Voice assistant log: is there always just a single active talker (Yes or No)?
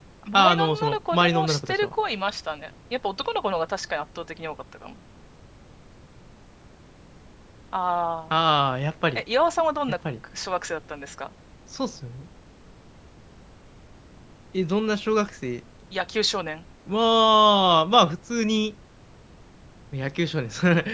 No